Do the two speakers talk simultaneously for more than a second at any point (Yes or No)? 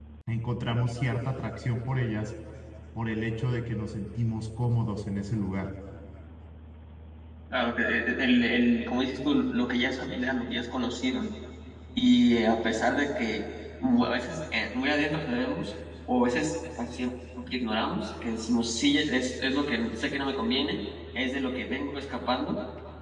No